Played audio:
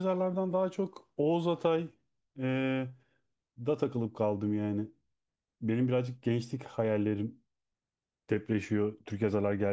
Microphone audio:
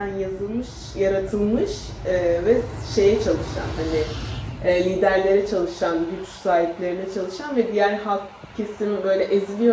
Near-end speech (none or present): present